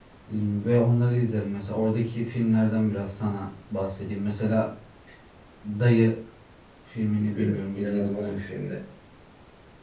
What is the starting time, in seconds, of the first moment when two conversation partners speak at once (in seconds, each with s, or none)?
7.2 s